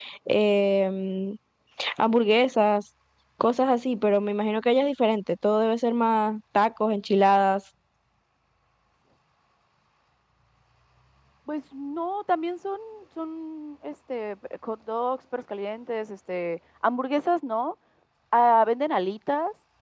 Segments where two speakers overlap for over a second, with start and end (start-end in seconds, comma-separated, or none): none